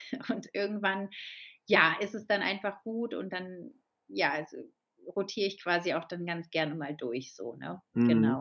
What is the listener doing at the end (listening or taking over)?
taking over